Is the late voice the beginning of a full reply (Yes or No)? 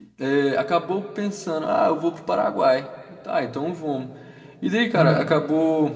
No